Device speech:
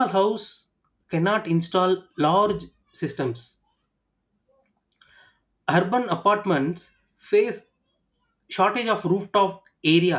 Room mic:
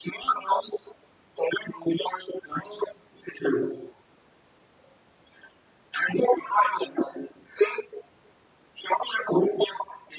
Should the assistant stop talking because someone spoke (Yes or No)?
No